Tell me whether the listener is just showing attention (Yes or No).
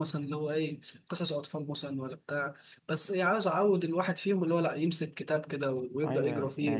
No